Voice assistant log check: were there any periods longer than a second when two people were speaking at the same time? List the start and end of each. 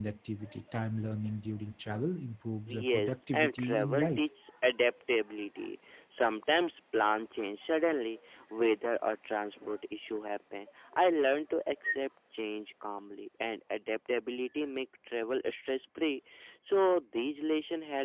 2.7-4.2

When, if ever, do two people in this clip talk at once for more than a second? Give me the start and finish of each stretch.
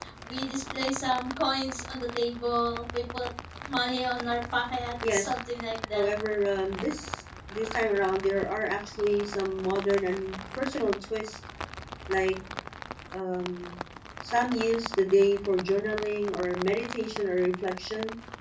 none

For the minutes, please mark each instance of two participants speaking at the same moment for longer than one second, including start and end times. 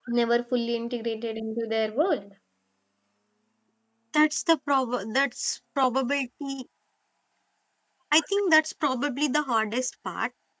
none

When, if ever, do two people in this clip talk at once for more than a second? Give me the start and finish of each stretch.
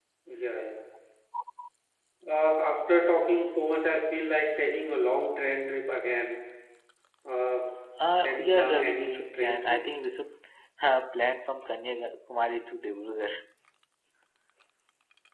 8.2-9.8

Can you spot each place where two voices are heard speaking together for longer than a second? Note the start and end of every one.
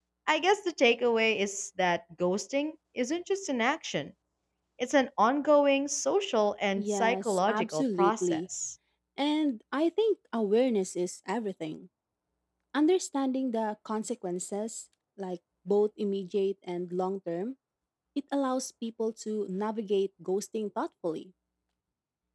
6.8-8.4

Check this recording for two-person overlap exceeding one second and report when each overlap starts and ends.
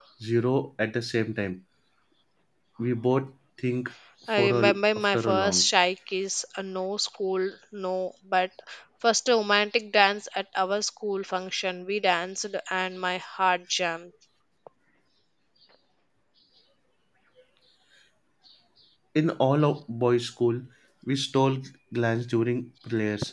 4.4-5.7

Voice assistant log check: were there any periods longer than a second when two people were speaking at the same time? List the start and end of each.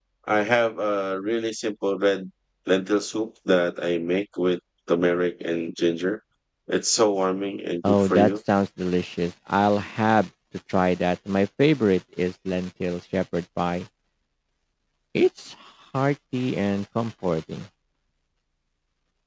none

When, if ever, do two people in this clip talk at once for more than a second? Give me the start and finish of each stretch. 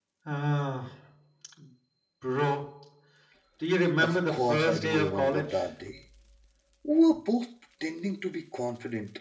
4.0-5.5

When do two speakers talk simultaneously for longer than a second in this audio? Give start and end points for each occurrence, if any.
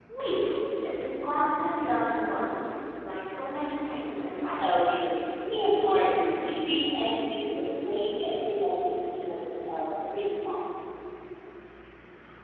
none

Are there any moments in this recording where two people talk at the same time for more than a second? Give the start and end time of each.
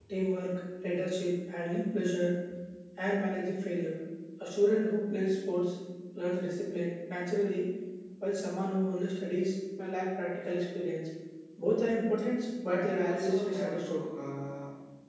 12.6-14.0

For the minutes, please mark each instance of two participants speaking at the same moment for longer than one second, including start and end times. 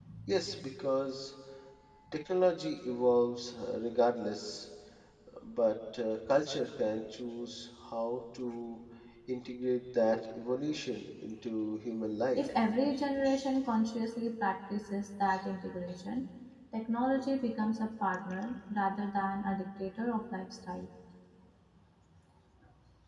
none

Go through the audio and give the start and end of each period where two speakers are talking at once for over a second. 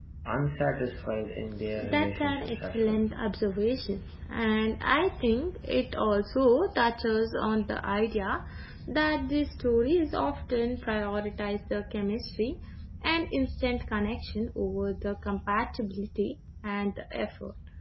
1.8-3.1

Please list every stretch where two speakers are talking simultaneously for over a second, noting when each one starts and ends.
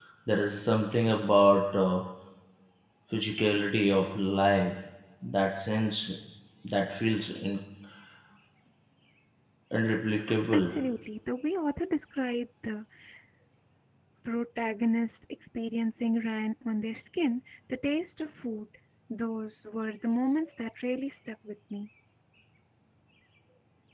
none

